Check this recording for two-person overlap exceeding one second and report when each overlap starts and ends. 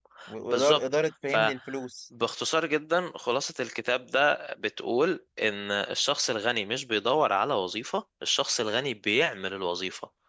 none

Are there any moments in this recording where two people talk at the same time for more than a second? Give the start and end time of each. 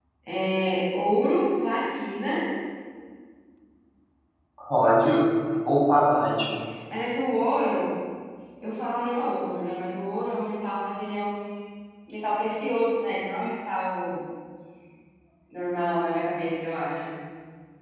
none

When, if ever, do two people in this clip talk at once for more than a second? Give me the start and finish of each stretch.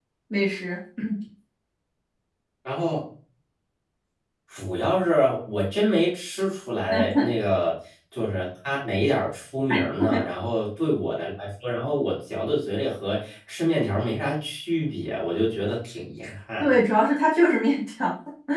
none

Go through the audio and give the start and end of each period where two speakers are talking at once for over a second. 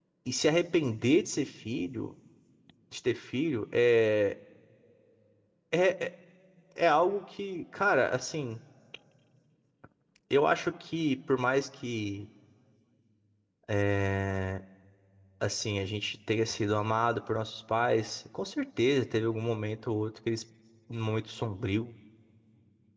none

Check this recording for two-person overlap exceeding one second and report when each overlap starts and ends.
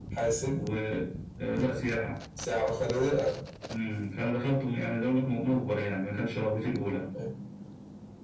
none

